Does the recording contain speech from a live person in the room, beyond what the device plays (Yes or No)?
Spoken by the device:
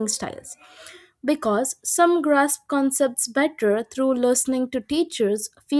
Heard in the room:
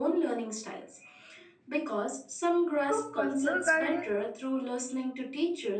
Yes